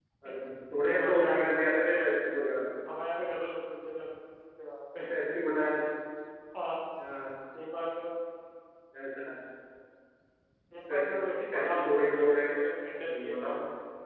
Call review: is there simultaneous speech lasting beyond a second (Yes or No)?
Yes